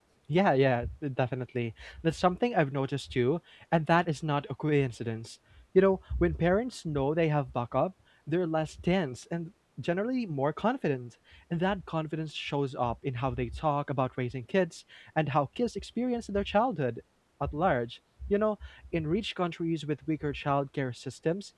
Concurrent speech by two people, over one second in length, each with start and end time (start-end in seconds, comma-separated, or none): none